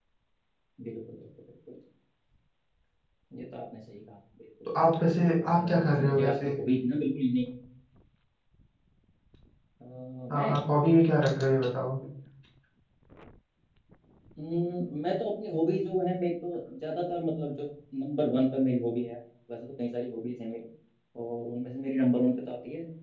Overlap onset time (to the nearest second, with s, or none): 5 s